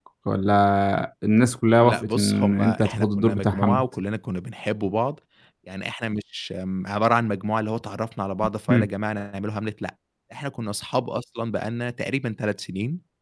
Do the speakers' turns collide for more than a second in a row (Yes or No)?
Yes